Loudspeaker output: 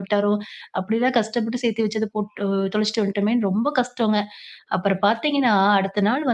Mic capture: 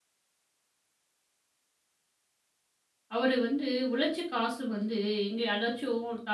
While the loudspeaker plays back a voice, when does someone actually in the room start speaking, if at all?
3 s

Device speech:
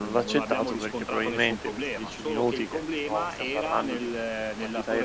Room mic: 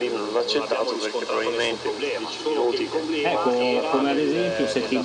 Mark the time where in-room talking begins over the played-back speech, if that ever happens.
3 s

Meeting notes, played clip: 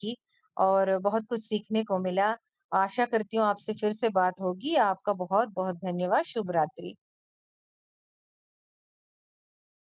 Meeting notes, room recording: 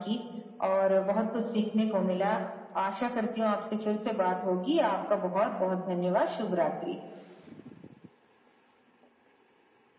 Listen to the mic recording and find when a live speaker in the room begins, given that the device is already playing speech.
none

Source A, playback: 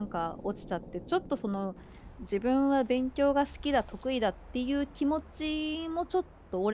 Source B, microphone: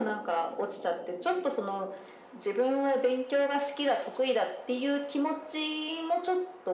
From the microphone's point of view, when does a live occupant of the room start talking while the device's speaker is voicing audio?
none

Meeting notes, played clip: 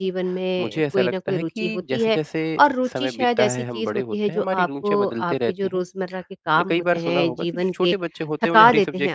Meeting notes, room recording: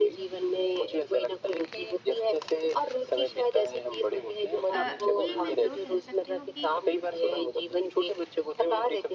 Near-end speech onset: 5 s

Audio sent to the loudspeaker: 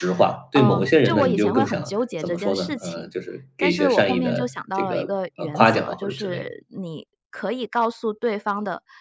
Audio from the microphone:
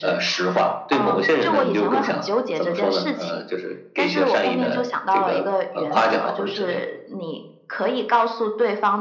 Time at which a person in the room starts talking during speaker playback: none

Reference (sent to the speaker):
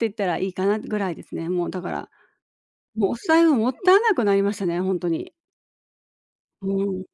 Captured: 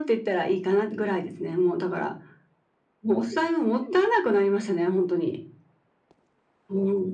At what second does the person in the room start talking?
none

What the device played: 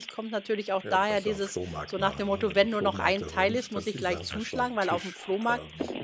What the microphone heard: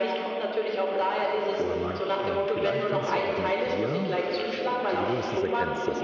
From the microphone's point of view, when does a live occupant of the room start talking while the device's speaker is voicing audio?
2 s

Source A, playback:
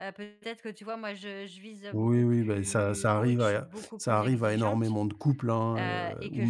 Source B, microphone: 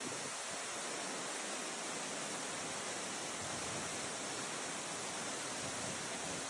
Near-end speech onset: none

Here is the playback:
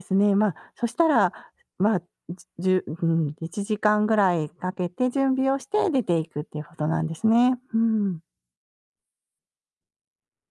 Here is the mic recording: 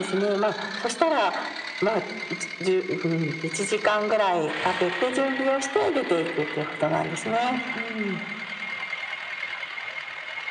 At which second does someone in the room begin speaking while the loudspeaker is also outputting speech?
none

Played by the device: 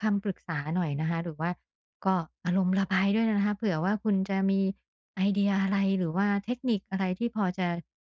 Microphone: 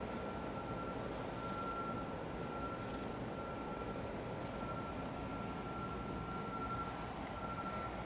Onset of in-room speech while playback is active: none

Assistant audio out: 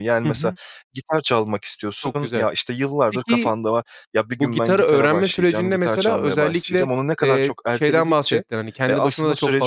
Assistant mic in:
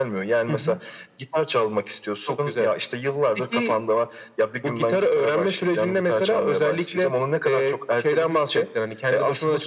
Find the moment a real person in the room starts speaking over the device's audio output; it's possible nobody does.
none

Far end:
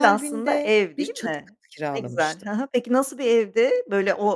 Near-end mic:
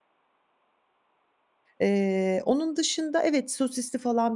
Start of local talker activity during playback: 2 s

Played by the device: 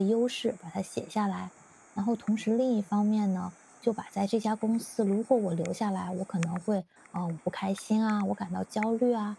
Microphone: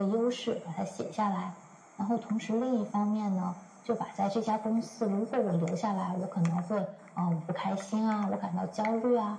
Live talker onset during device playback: none

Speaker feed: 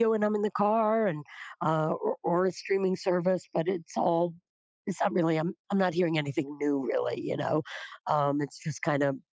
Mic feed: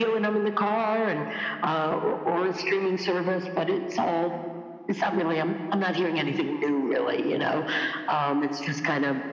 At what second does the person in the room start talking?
none

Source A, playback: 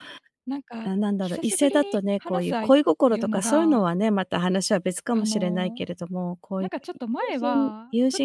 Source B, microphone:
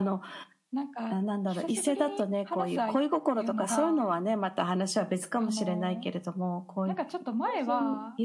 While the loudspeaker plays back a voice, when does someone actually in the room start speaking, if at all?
none

